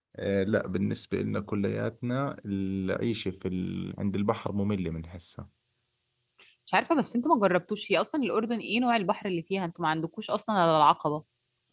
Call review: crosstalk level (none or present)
none